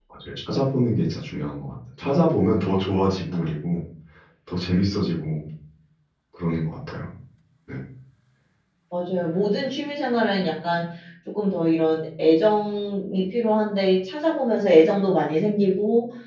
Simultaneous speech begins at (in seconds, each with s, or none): none